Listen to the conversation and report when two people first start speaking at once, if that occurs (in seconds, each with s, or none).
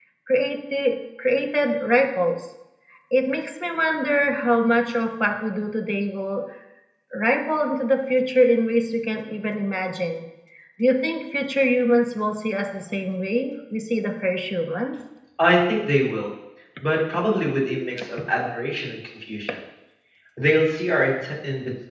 none